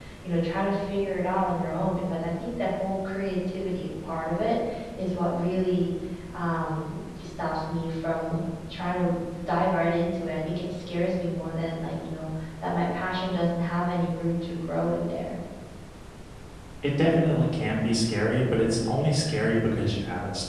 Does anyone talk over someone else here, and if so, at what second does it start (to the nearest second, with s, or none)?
none